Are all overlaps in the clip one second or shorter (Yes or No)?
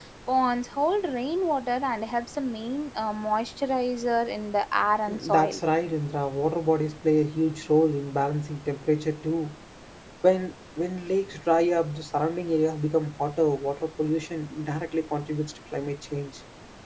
Yes